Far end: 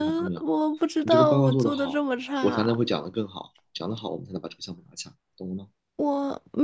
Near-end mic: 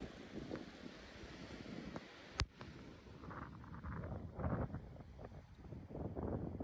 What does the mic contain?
neither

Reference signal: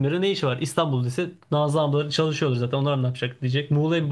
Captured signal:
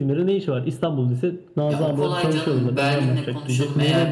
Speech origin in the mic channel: both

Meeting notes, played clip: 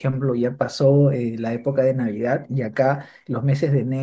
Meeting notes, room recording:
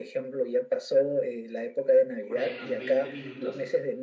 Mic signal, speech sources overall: both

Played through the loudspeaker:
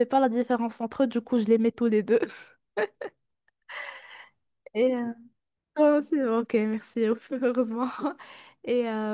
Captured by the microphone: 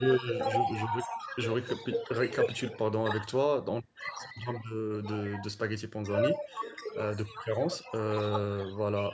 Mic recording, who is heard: both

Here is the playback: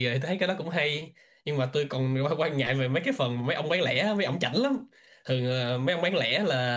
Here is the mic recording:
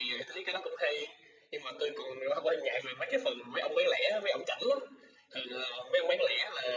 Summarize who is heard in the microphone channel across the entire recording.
echo only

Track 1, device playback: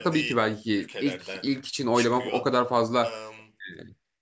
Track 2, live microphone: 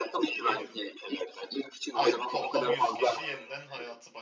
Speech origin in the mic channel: both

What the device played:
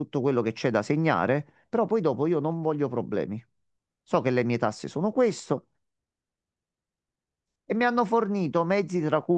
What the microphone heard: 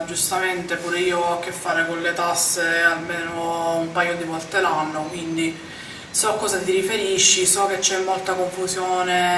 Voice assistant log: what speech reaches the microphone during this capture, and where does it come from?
user only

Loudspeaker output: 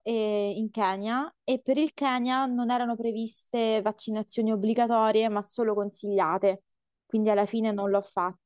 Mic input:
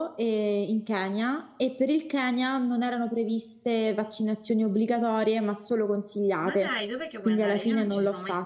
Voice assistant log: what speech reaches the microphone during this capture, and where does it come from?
both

